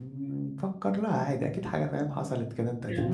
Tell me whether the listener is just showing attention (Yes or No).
No